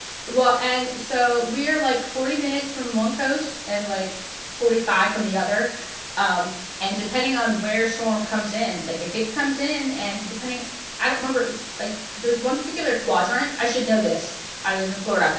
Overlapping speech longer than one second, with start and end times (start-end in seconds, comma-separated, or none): none